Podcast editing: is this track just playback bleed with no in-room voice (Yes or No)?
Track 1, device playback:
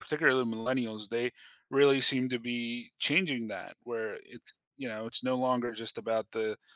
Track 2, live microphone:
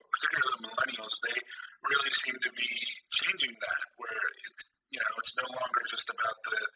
Yes